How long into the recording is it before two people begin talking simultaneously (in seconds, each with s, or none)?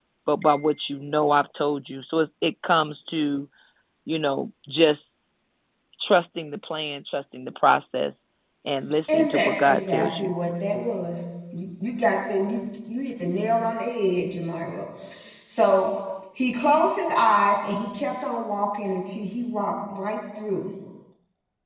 9.1 s